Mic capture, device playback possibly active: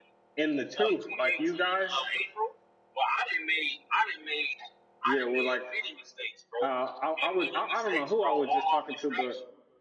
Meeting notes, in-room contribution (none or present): present